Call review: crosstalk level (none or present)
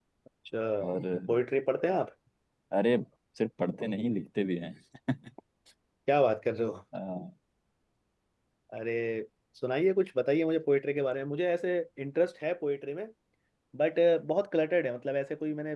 none